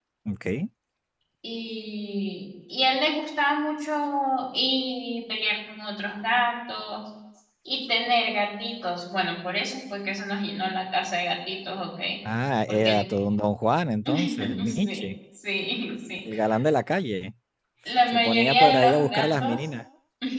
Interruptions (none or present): present